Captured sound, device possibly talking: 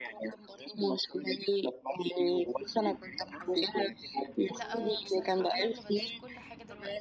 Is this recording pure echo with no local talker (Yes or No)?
No